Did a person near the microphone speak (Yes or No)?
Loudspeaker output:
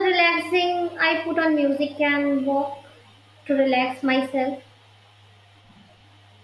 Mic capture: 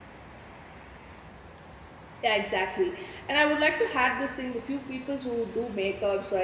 Yes